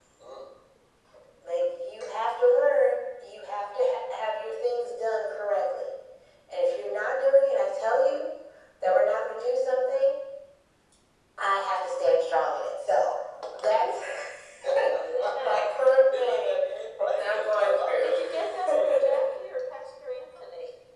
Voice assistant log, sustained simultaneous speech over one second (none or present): present